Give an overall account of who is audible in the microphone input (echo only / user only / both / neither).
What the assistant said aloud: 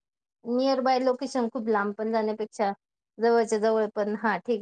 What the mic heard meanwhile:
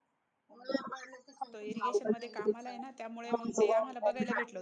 both